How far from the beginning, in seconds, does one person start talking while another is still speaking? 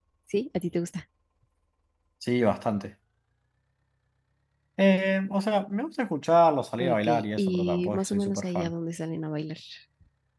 6.8 s

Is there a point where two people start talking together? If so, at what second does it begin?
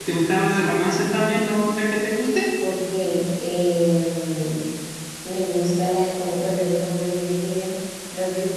none

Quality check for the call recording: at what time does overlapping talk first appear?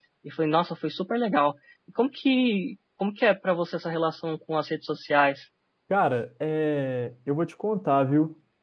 none

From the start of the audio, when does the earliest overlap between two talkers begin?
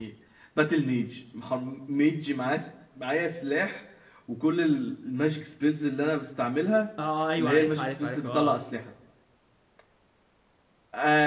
7.4 s

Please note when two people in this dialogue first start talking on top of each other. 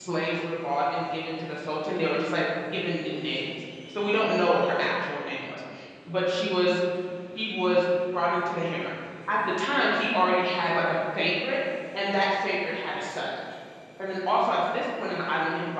none

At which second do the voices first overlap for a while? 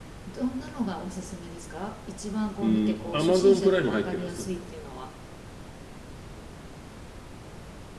2.6 s

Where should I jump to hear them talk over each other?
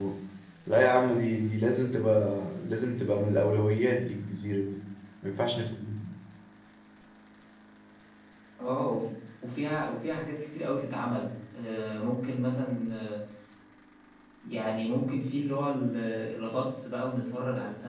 none

